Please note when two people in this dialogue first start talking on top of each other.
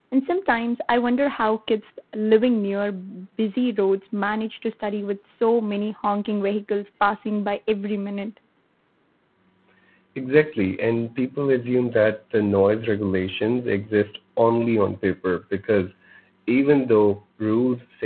none

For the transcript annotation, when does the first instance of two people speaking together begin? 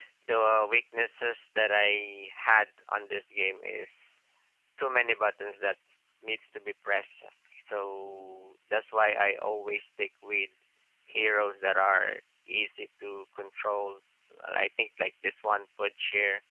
none

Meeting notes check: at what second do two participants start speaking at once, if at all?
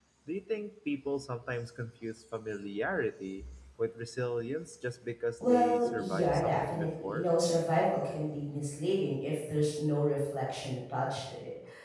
5.4 s

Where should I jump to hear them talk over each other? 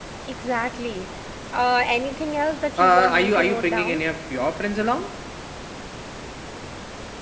2.8 s

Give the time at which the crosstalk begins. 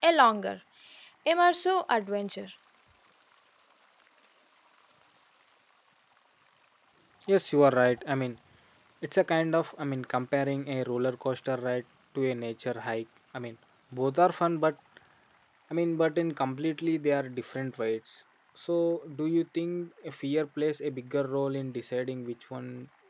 none

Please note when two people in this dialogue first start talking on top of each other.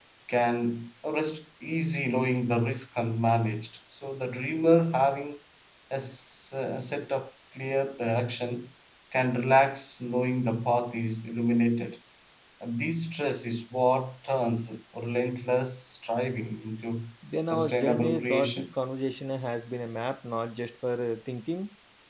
17.5 s

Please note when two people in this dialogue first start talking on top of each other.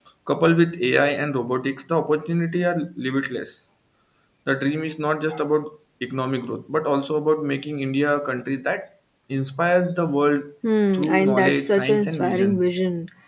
10.9 s

